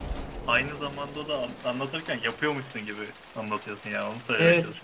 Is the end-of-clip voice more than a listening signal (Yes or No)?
Yes